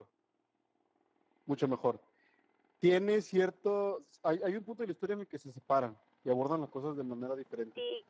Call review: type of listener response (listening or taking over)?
taking over